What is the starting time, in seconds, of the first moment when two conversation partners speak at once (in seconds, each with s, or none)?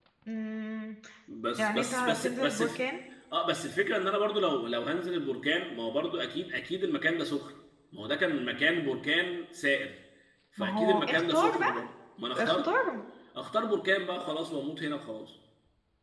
1.6 s